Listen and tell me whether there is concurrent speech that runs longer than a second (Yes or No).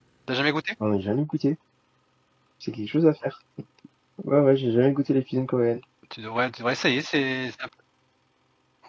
No